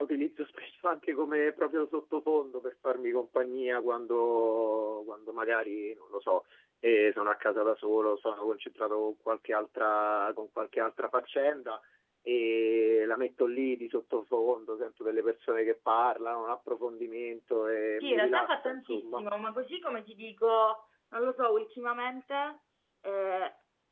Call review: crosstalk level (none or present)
present